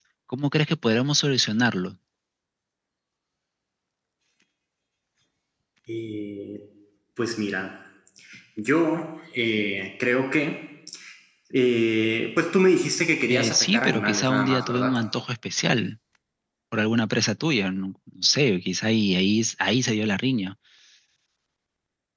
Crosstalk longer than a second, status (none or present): present